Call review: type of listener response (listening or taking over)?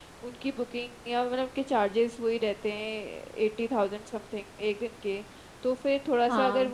listening